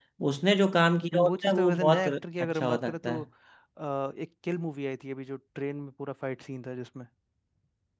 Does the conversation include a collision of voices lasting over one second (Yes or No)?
Yes